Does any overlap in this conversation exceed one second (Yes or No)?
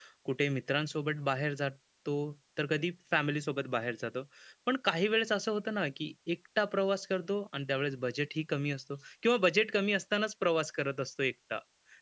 No